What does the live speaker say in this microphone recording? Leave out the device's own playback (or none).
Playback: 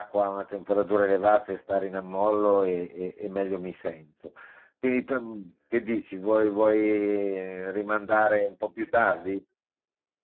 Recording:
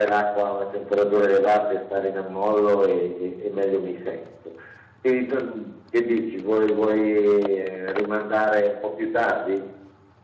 none